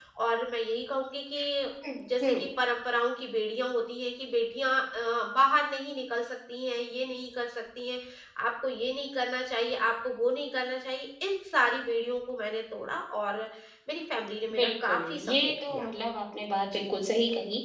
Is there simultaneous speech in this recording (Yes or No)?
Yes